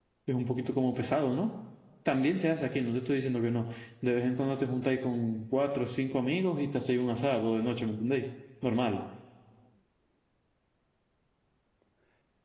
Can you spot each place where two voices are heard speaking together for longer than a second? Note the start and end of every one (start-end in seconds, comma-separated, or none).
none